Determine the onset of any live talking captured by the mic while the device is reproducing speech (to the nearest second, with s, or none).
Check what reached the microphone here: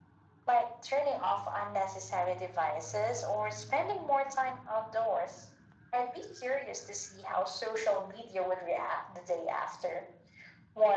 none